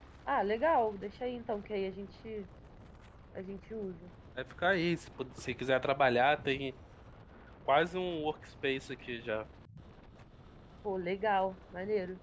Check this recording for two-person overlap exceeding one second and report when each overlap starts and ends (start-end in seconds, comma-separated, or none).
none